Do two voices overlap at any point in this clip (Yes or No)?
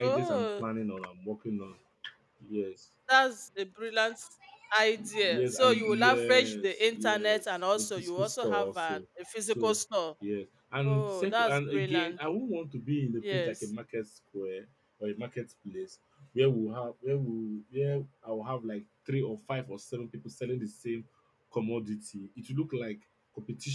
Yes